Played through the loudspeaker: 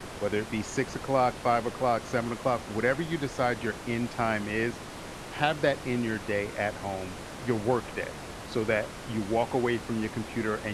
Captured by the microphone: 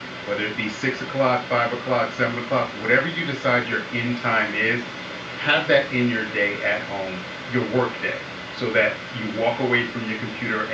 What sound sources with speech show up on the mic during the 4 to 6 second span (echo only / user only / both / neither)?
echo only